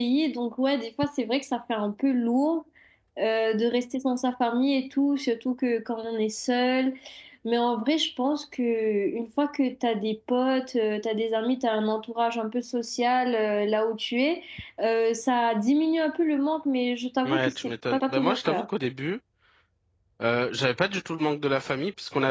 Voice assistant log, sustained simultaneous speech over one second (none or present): present